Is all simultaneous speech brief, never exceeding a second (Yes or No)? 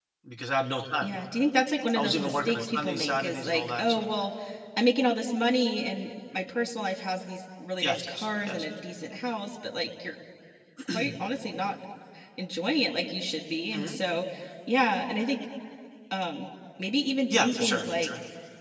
No